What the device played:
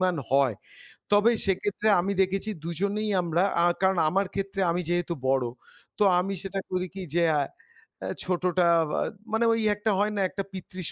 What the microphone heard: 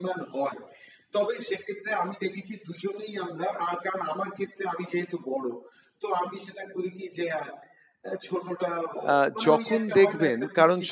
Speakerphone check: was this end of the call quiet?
No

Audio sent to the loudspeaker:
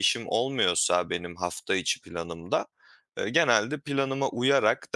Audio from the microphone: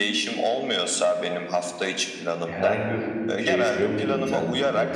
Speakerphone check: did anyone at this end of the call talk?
Yes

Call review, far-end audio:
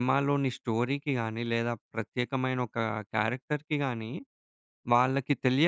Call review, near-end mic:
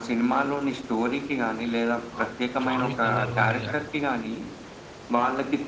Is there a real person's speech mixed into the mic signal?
Yes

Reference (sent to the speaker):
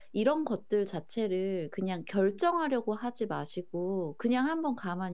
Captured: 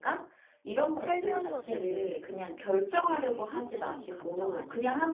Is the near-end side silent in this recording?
No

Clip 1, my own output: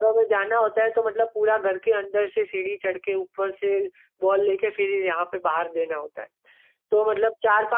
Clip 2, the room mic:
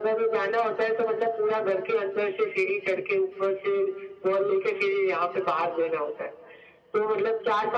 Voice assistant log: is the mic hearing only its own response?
Yes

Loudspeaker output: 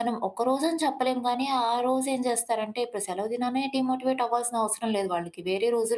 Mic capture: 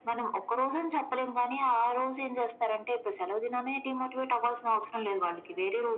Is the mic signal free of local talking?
Yes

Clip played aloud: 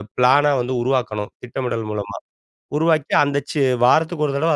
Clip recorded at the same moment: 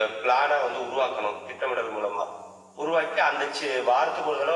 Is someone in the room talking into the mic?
No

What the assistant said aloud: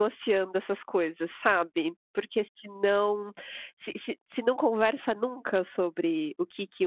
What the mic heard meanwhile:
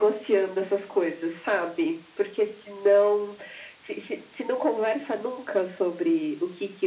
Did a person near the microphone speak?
No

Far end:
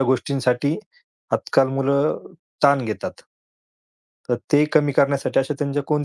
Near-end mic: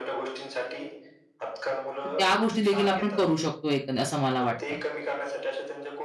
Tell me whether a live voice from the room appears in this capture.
Yes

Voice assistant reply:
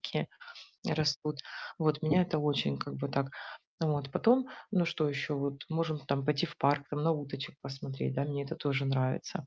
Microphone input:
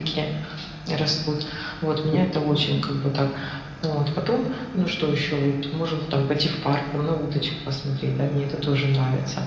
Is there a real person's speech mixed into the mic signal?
No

